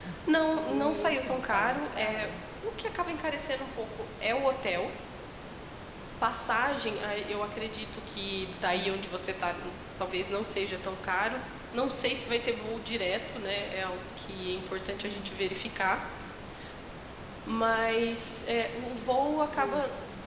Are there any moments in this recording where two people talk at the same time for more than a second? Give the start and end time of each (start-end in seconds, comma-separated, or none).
0.7-2.3